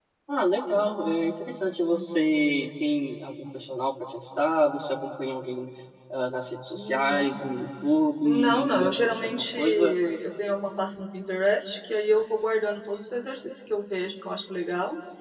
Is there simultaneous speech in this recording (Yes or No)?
Yes